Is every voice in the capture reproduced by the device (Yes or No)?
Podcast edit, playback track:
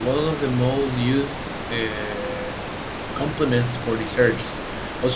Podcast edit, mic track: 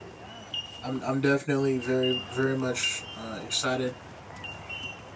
No